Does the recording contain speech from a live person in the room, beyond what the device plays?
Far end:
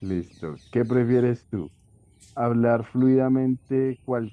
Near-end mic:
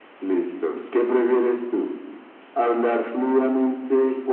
No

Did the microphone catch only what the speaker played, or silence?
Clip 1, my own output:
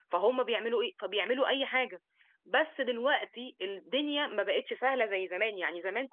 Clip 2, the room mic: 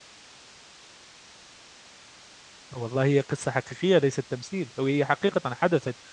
No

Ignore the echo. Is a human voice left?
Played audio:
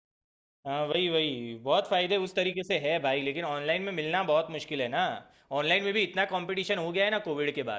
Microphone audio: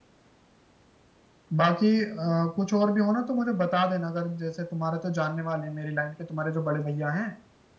Yes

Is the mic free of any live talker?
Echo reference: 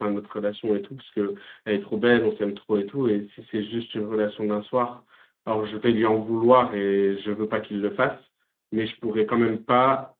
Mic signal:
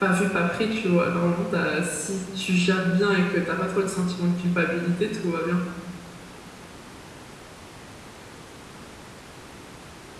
No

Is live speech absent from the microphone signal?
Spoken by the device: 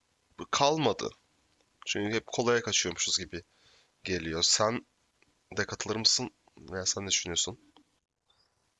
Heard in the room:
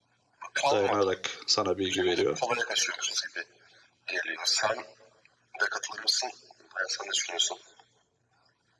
No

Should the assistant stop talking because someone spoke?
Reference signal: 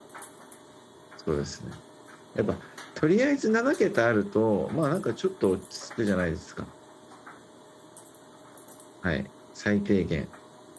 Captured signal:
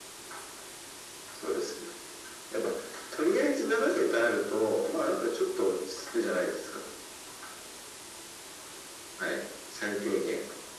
No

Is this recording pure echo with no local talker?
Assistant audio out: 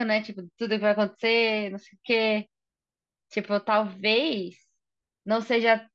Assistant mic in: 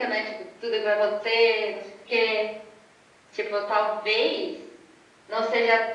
Yes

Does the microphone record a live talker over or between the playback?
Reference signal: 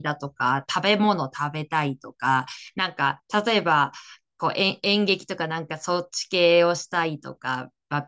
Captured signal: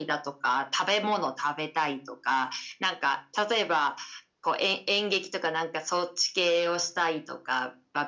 No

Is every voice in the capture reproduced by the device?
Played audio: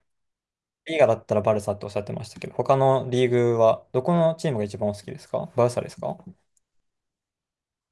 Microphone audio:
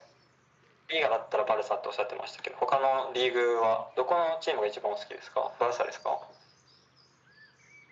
Yes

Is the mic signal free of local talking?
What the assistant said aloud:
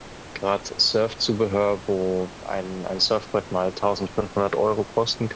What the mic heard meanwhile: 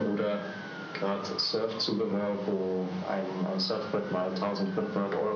Yes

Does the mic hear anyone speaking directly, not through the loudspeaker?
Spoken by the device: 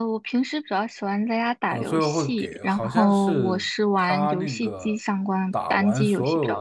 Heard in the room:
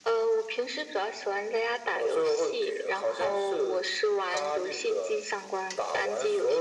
No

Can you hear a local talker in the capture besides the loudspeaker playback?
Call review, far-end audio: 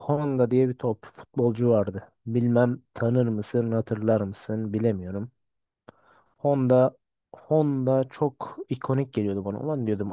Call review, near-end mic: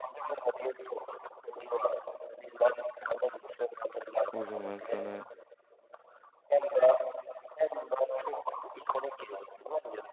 Yes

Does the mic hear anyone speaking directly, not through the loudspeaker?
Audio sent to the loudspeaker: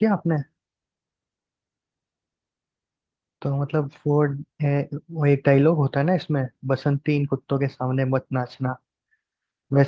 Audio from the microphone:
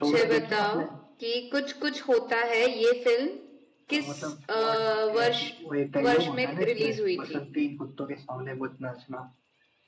Yes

